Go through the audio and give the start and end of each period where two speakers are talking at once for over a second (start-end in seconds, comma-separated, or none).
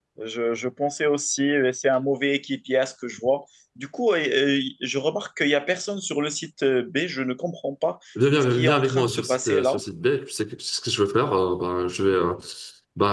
8.4-9.8